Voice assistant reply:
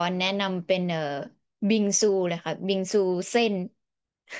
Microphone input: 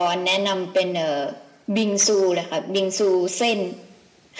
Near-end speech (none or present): none